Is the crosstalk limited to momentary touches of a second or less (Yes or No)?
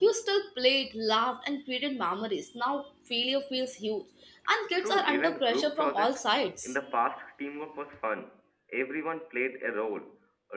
No